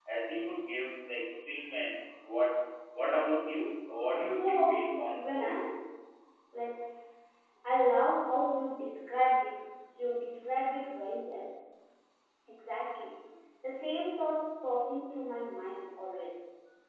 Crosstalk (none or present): present